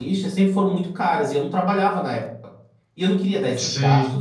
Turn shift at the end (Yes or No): No